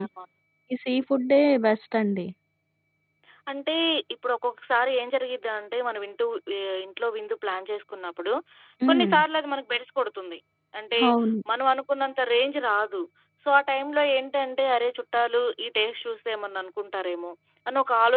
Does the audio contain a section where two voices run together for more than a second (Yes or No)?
No